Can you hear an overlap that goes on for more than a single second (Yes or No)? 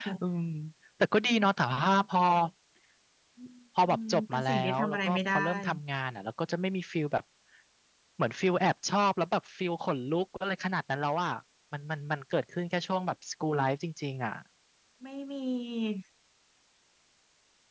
Yes